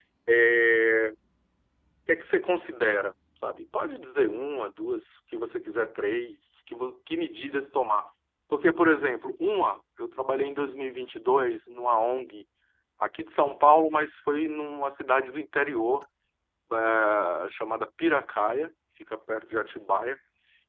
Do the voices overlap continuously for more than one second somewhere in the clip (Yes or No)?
No